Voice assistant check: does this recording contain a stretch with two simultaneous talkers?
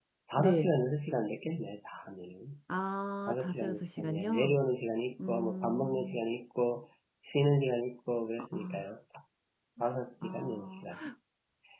Yes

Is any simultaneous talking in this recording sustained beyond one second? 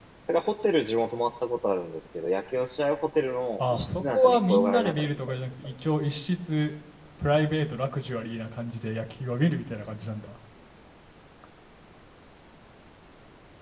Yes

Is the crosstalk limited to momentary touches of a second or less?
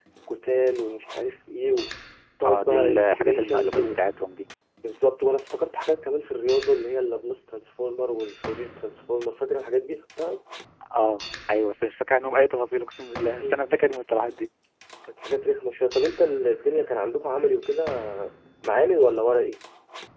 No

